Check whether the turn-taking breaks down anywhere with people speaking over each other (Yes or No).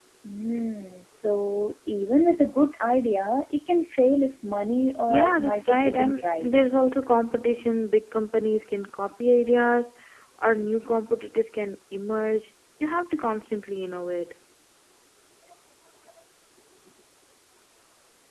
Yes